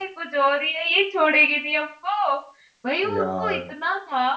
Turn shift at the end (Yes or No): No